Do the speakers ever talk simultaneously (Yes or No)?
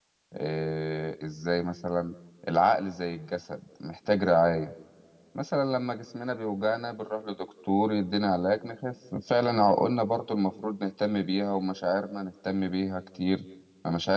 No